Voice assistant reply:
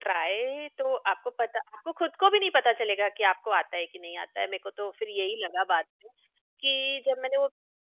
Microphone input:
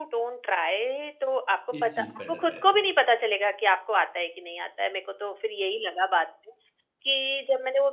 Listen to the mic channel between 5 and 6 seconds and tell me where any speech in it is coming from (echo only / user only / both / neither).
echo only